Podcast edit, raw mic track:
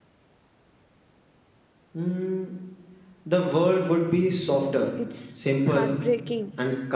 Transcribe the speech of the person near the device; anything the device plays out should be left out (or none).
It's heartbreaking